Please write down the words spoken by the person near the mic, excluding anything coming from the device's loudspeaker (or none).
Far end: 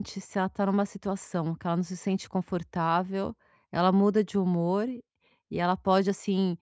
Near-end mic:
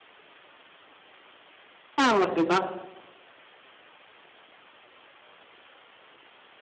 Ela foi bas